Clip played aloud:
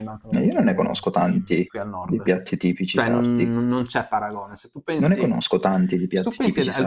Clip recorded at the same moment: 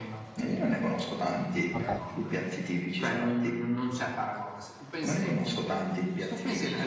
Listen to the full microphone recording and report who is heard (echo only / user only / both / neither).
both